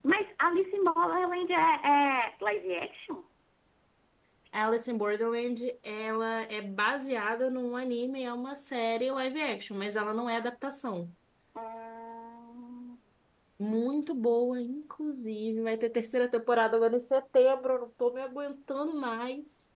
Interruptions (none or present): none